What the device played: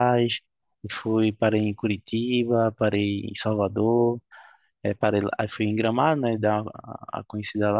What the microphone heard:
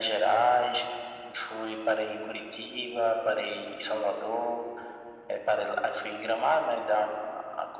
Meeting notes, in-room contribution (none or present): none